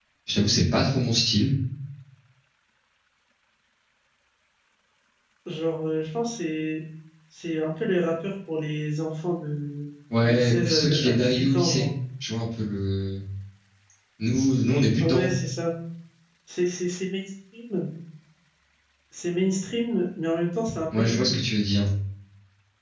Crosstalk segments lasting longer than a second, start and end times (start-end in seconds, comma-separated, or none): 10.2-11.9